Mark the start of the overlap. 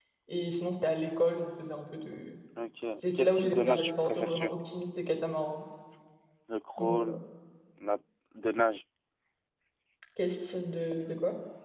3.0 s

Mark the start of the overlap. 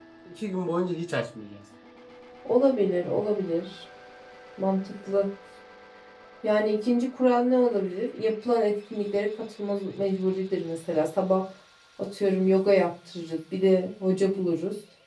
none

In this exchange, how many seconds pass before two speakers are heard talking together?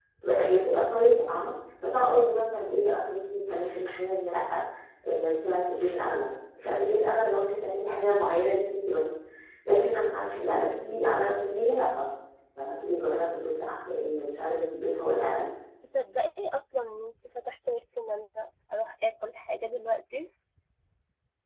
none

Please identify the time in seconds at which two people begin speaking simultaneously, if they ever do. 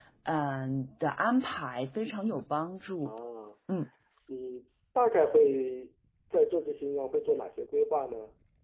none

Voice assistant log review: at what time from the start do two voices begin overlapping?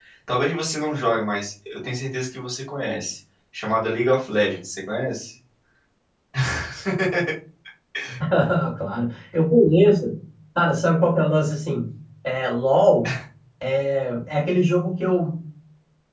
none

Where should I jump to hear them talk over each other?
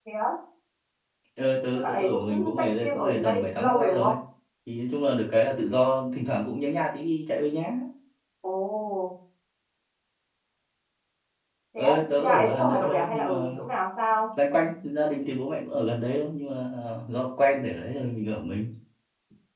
1.8 s

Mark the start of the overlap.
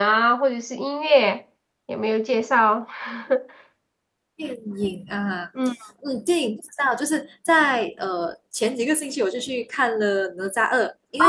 none

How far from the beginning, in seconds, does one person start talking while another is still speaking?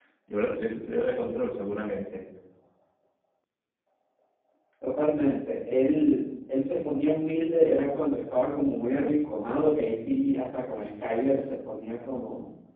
none

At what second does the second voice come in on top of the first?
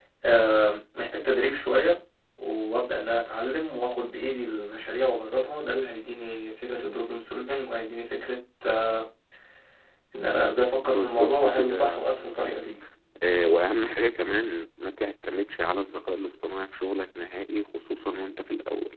10.6 s

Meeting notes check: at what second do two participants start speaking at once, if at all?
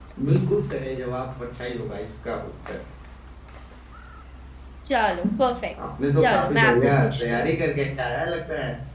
6.2 s

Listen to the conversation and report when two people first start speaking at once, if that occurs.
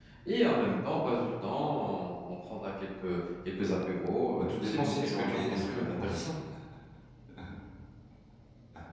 4.3 s

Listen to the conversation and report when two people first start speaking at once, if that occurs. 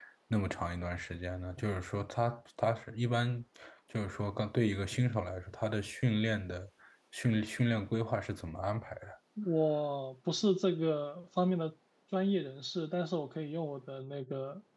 none

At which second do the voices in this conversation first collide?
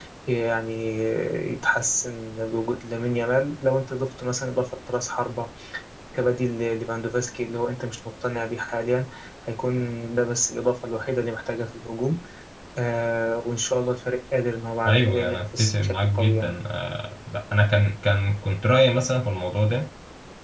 14.8 s

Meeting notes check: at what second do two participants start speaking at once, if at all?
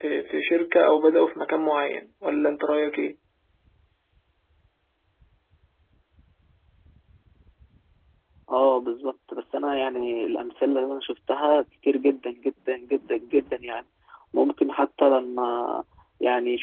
none

